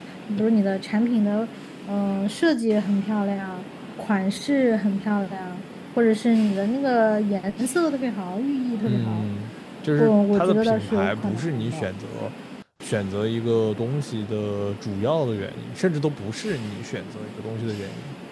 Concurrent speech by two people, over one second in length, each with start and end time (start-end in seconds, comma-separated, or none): 10.0-11.9